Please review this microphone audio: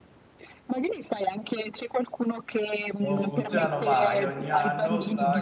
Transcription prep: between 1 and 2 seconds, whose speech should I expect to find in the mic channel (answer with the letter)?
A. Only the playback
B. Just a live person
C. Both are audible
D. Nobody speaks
A